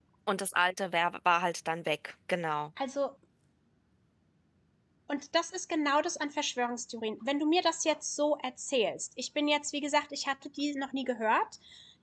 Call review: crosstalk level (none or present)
none